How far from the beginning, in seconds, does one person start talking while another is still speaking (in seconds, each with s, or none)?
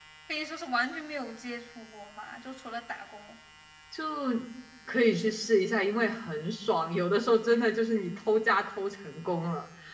none